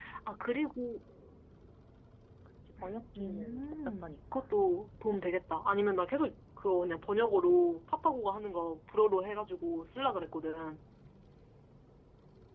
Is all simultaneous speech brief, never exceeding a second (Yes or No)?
No